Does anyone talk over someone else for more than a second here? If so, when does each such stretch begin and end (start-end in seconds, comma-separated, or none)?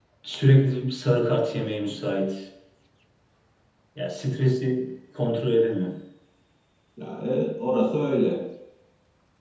none